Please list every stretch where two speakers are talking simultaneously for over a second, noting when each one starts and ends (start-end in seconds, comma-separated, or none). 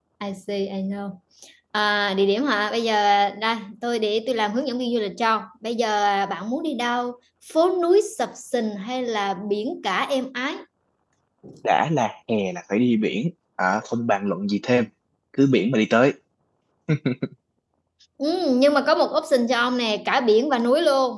none